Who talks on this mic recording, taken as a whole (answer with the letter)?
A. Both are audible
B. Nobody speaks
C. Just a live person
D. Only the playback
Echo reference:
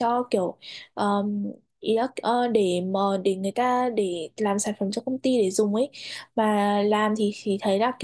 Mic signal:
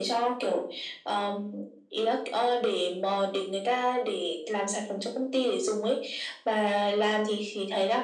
D